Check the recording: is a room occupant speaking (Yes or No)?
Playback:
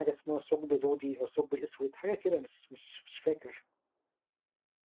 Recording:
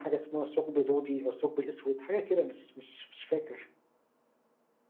No